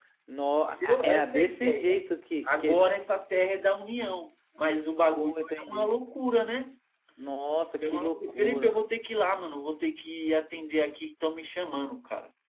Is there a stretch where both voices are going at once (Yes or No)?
Yes